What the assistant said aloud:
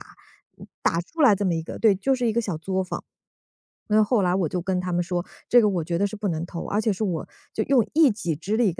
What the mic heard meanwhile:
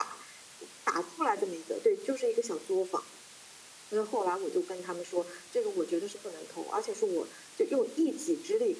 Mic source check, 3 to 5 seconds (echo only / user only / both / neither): echo only